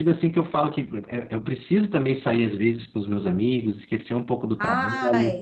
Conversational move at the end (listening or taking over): listening